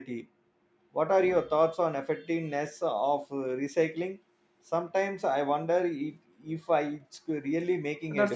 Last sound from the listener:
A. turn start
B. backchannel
A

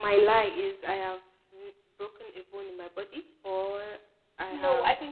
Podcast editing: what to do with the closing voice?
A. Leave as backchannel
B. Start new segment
B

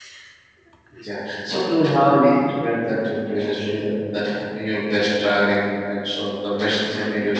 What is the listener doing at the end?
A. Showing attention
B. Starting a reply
B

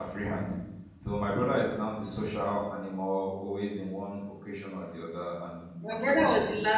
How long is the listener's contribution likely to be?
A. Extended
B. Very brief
A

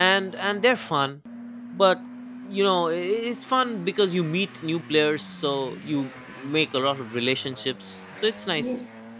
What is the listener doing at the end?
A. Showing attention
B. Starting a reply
B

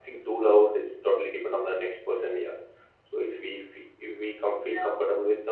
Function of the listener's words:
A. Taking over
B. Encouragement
B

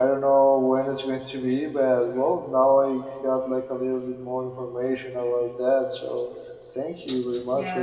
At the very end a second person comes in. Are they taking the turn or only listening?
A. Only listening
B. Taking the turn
B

